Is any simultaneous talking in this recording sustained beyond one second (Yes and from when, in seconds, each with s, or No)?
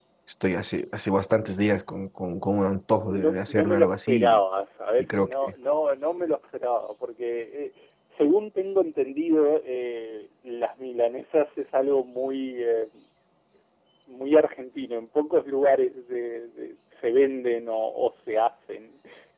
Yes, from 3.1 s